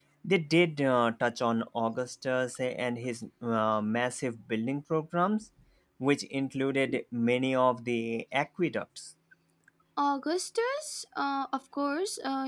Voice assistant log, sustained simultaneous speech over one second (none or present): none